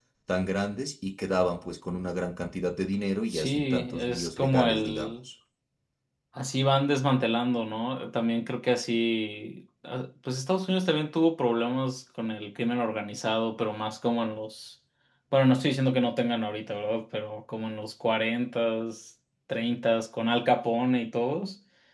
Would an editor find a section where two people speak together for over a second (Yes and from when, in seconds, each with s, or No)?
Yes, from 3.3 s